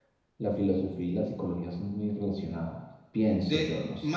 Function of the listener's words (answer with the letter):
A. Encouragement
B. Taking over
B